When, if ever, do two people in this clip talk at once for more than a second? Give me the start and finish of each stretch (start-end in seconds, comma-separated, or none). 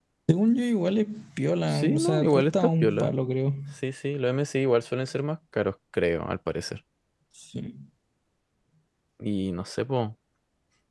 1.7-3.1